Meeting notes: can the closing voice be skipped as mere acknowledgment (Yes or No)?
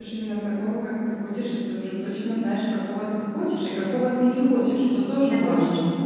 No